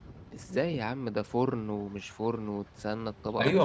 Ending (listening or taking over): taking over